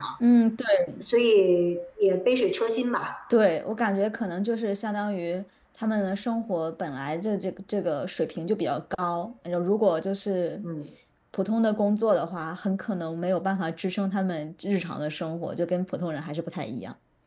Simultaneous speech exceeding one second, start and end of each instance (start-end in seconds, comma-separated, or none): none